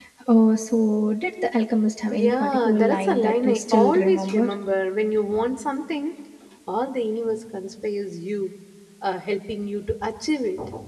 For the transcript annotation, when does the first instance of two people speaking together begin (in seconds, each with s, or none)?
2.1 s